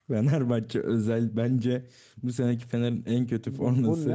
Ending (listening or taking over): taking over